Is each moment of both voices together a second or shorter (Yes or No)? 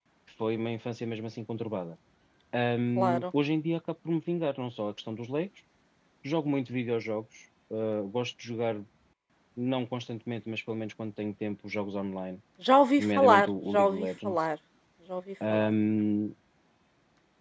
No